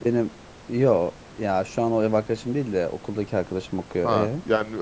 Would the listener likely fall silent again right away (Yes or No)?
No